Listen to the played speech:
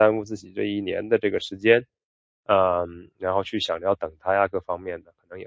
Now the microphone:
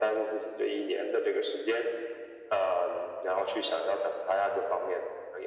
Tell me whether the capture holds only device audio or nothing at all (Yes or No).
Yes